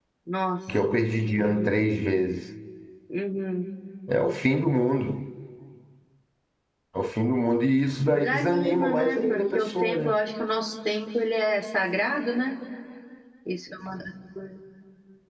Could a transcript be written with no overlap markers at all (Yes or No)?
No